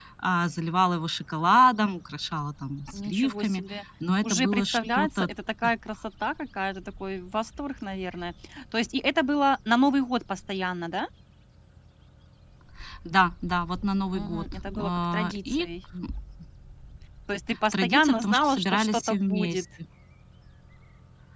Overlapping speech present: Yes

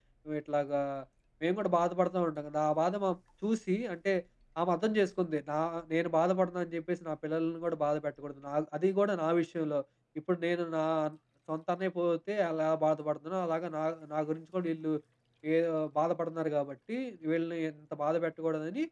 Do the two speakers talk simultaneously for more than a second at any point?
No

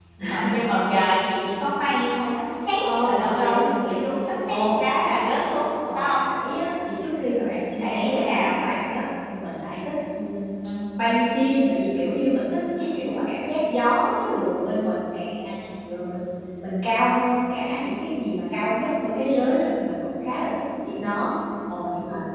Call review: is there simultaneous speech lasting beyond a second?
Yes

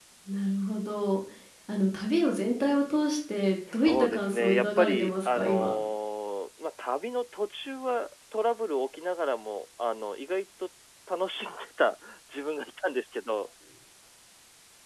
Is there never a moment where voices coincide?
No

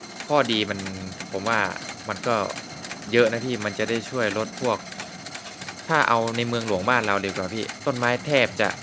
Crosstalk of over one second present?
No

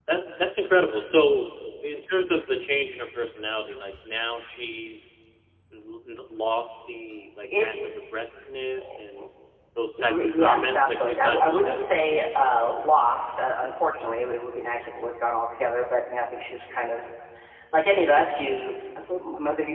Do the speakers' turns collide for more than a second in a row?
Yes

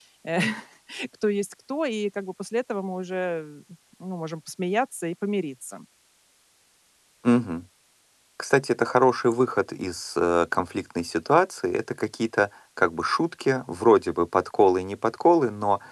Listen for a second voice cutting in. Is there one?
No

